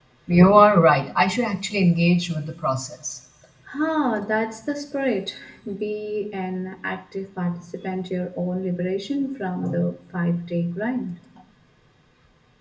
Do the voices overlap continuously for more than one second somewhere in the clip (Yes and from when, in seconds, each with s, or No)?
No